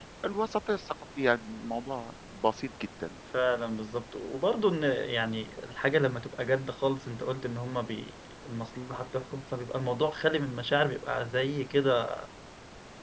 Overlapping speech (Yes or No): No